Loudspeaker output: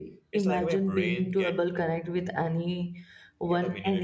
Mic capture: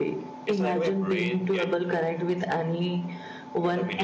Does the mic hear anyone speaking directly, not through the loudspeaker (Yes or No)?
No